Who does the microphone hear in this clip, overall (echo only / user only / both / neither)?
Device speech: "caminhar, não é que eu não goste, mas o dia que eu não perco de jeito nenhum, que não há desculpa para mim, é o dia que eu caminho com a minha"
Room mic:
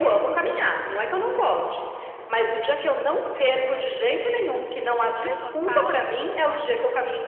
both